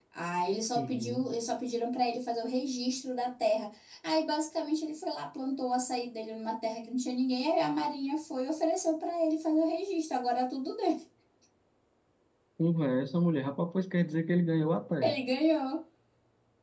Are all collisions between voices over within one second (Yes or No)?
Yes